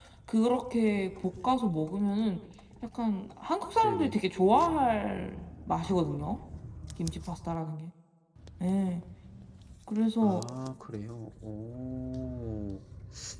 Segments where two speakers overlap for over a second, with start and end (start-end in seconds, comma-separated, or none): none